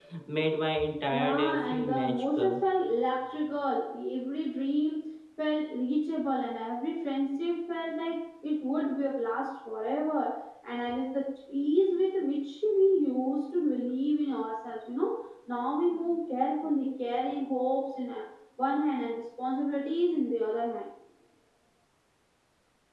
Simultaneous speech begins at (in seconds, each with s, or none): 1.1 s